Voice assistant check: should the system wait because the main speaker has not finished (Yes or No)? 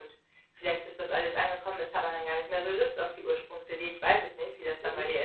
No